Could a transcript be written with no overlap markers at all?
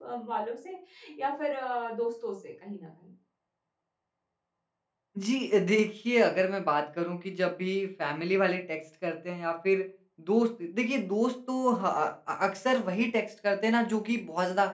Yes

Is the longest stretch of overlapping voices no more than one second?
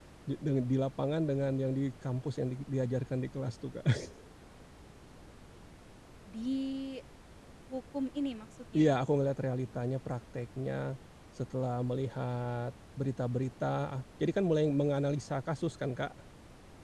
Yes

